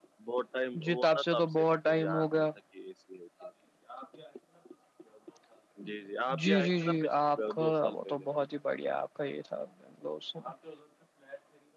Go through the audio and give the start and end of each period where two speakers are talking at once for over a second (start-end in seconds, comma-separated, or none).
0.8-2.5, 6.4-8.2